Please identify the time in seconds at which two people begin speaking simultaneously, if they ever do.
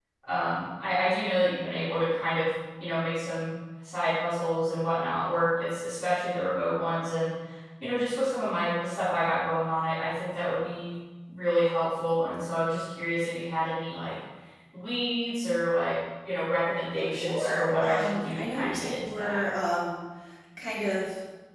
17.0 s

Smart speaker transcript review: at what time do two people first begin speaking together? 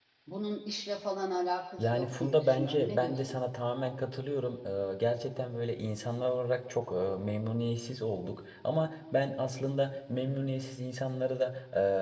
1.8 s

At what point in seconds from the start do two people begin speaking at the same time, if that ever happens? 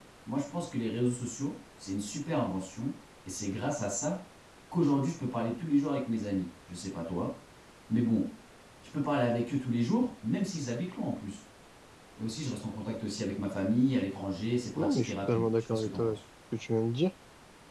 14.8 s

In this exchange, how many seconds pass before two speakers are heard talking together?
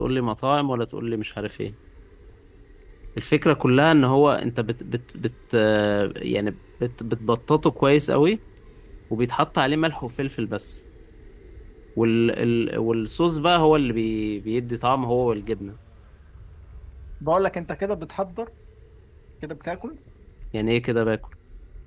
none

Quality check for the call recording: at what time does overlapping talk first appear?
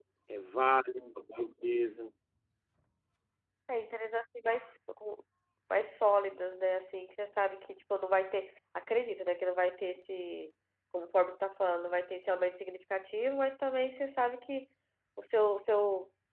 none

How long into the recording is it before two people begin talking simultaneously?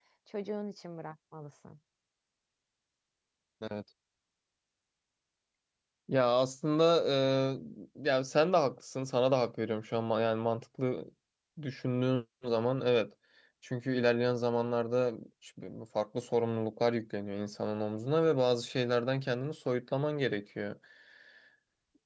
none

